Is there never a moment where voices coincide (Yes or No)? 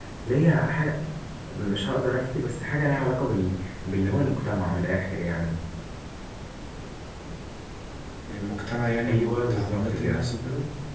No